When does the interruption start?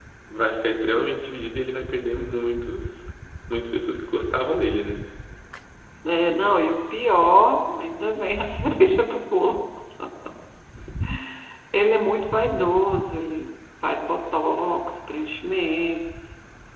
none

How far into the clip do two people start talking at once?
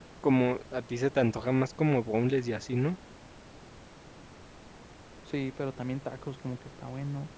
none

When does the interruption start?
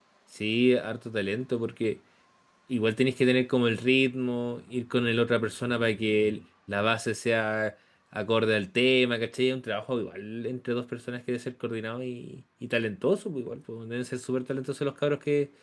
none

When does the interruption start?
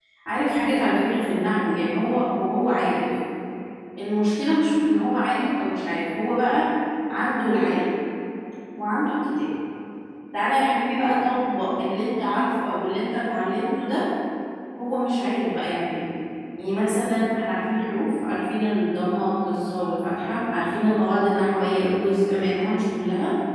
none

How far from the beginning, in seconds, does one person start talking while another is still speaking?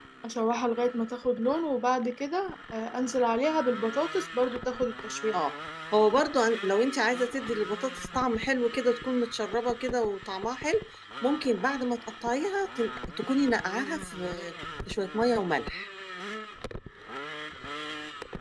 none

